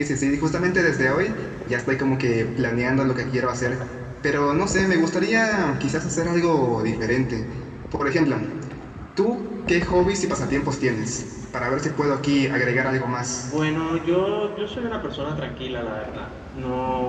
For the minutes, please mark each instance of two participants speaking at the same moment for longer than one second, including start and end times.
none

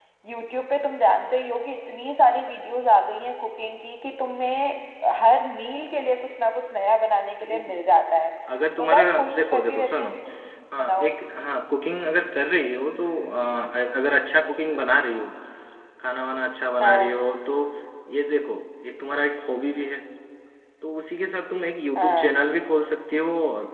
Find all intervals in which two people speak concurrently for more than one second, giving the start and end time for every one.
8.8-10.1

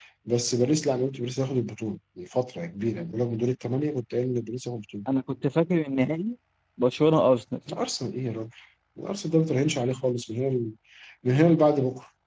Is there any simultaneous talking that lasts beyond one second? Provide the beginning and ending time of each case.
none

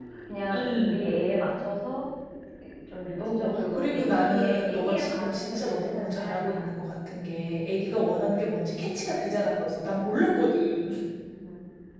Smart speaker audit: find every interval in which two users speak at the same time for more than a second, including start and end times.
3.4-6.6

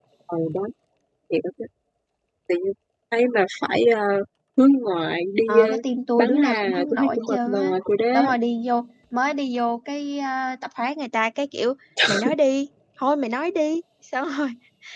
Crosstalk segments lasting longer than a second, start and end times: 6.2-7.7

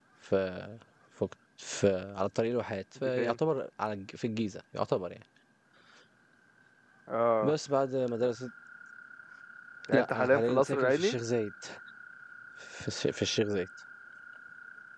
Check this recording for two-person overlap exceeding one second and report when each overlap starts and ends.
9.9-11.2

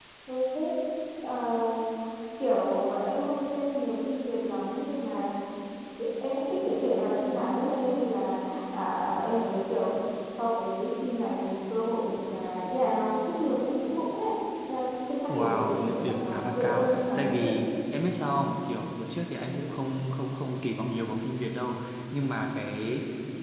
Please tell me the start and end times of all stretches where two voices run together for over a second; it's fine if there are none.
15.3-17.4

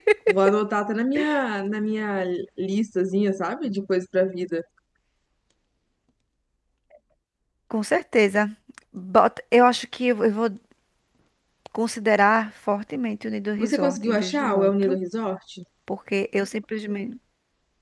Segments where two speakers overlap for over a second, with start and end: 13.6-15.0

